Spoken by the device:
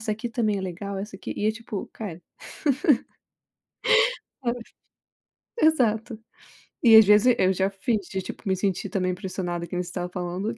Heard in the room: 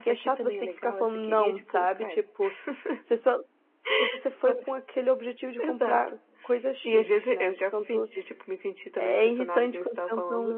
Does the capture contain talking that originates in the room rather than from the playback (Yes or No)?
Yes